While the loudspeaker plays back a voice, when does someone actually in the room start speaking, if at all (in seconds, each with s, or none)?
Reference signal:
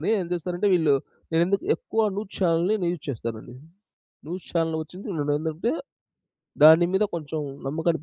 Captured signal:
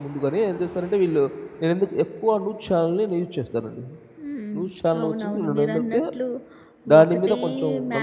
4.2 s